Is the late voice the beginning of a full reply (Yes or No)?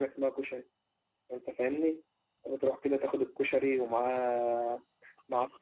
Yes